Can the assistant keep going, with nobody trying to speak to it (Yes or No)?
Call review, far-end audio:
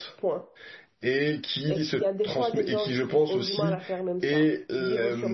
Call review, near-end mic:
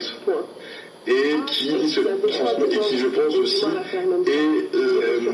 No